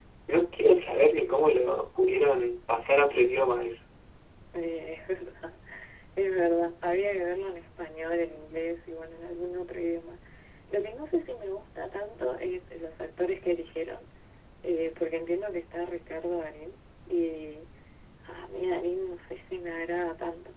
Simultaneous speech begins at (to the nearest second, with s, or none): none